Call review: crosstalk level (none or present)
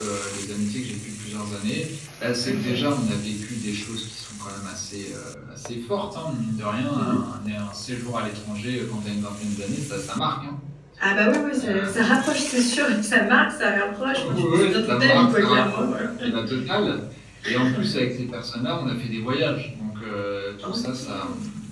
present